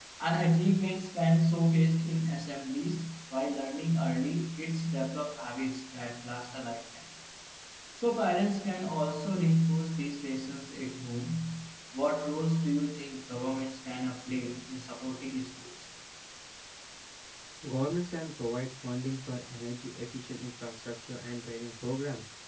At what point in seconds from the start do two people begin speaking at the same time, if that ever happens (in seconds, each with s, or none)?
none